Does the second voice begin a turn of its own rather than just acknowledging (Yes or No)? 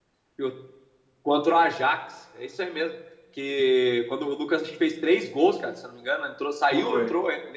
No